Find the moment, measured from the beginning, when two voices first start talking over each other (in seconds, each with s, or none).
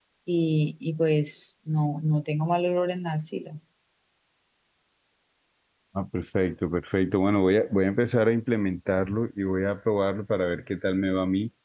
none